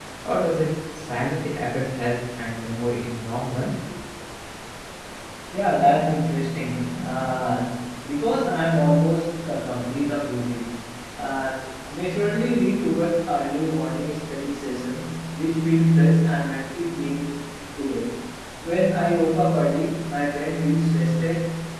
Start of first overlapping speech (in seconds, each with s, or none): none